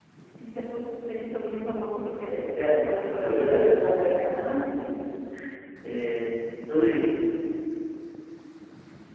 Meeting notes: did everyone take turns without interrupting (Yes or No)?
No